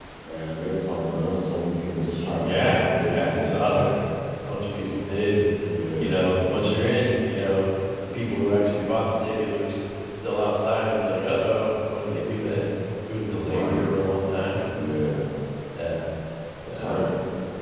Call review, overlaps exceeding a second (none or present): present